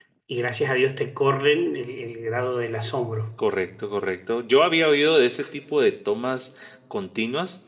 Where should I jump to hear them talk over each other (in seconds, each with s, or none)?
none